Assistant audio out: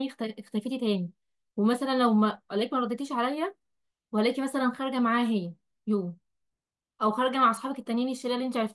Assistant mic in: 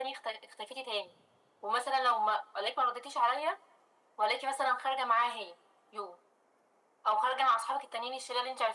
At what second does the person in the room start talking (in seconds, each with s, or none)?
none